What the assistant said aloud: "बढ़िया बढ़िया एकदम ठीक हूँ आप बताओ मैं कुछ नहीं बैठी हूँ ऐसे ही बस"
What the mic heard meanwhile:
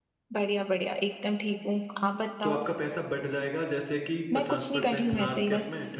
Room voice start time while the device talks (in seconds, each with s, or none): 2.4 s